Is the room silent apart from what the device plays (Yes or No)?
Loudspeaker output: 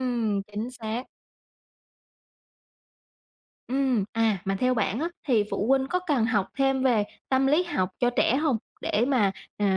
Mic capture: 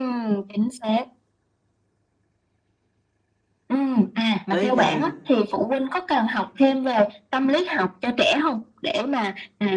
No